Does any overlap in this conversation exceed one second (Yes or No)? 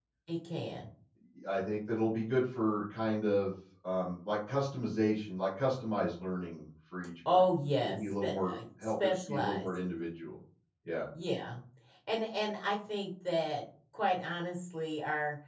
Yes